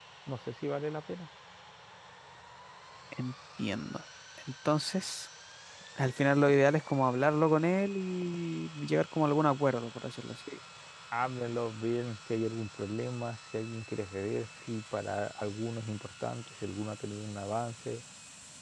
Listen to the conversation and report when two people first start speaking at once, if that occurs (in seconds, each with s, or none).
none